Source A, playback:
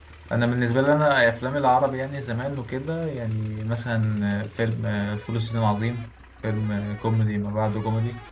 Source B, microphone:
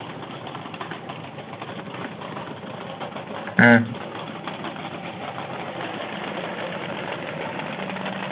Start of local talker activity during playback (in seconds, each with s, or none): 3.6 s